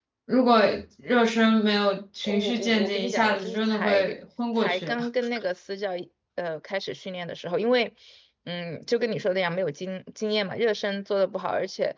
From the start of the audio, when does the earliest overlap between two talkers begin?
2.2 s

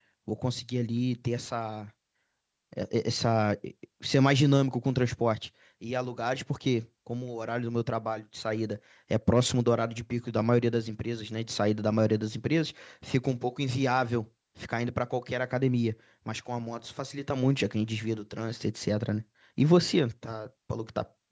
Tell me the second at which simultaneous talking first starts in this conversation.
none

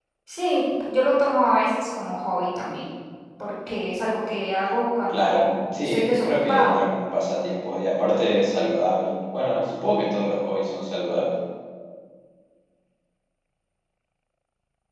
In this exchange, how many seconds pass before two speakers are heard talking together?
5.1 s

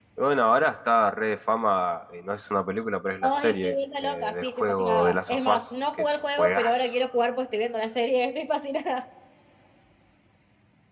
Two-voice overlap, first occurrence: 3.2 s

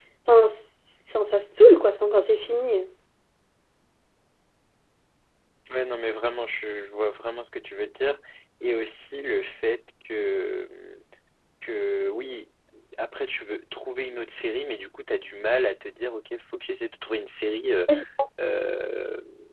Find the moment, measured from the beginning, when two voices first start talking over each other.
none

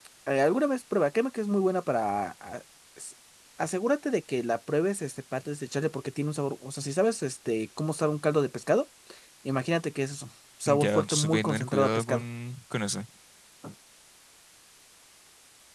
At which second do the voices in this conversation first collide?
10.7 s

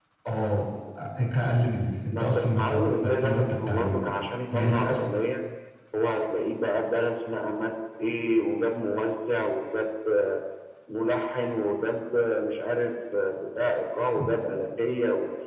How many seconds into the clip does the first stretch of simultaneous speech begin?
2.1 s

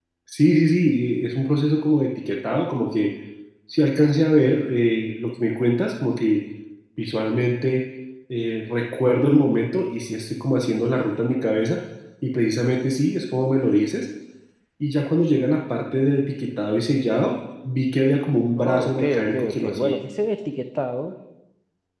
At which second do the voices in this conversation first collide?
18.6 s

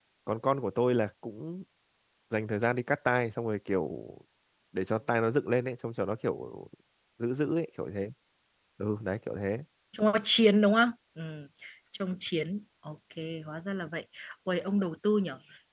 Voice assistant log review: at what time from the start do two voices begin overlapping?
none

